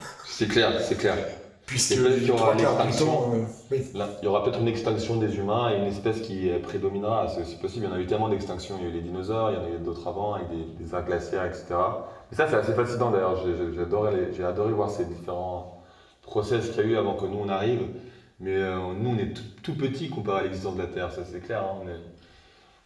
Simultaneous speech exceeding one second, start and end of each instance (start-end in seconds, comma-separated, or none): 1.9-3.3